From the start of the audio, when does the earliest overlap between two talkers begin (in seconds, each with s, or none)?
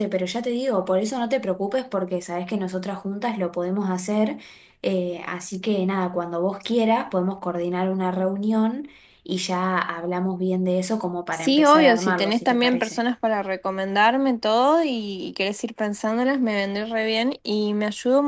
11.3 s